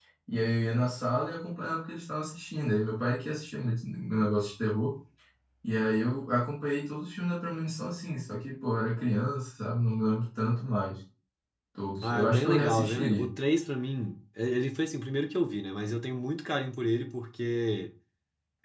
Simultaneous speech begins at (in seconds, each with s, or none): 12.1 s